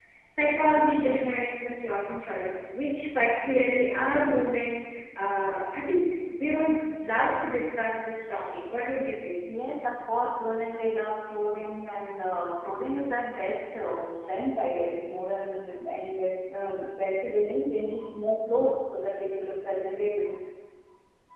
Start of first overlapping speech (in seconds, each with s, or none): none